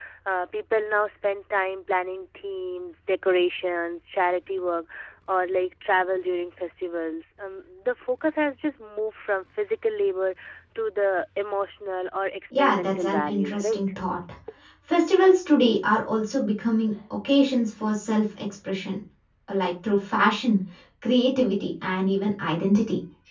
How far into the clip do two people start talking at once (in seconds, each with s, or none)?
12.5 s